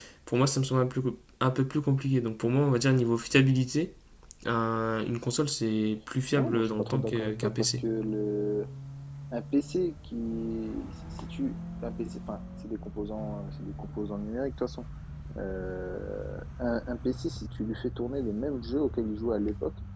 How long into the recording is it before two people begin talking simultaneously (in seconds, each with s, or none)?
6.3 s